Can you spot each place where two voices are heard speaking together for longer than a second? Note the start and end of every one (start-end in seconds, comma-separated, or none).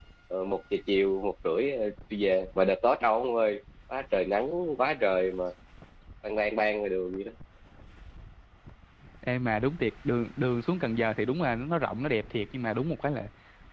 none